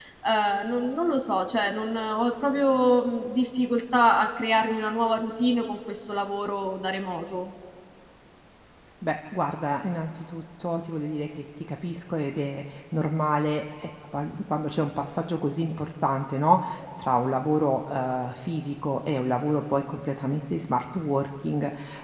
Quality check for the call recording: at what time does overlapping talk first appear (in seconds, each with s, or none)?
none